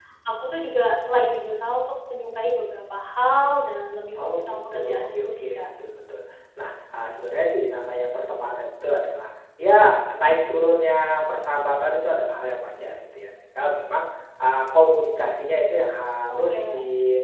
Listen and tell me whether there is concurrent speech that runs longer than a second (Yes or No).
Yes